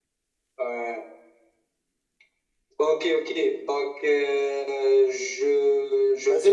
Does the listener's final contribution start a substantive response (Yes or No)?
Yes